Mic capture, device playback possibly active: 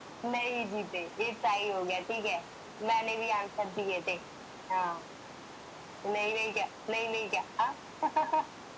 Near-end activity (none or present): none